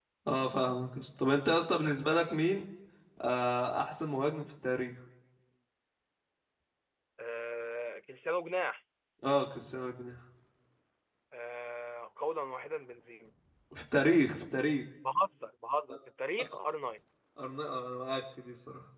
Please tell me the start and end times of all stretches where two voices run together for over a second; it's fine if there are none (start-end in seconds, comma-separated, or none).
none